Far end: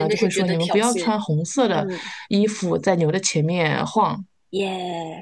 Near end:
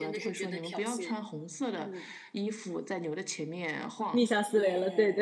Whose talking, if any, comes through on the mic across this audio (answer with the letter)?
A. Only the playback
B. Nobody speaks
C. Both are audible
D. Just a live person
C